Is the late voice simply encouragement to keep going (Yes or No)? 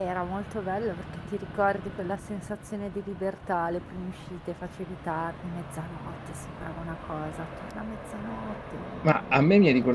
No